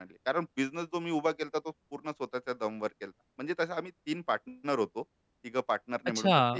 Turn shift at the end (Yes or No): Yes